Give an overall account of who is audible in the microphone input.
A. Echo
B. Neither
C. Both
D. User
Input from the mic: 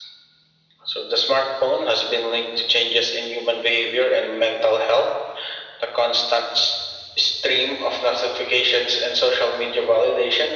A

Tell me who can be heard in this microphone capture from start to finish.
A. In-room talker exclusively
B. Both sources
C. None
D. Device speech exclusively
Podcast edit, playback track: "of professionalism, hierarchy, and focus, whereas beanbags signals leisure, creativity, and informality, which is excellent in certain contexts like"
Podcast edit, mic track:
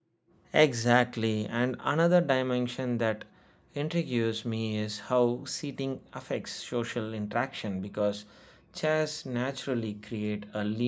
A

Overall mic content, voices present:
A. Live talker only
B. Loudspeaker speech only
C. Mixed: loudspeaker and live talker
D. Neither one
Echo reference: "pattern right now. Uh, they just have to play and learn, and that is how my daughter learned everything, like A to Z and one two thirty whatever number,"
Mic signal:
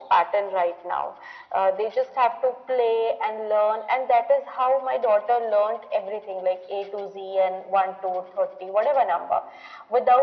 B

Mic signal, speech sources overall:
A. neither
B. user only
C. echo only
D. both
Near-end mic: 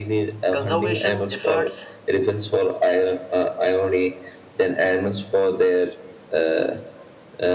D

